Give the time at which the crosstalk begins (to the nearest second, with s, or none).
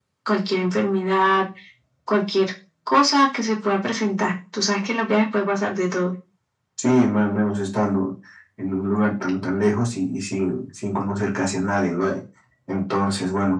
none